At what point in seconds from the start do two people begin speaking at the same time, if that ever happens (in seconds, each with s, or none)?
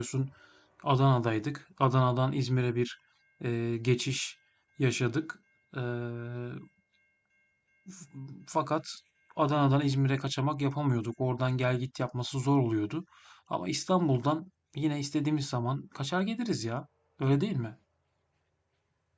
none